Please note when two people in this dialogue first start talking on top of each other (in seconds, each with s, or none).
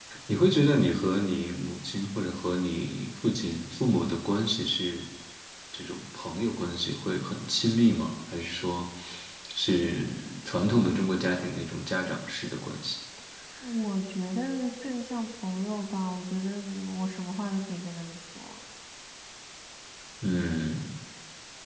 none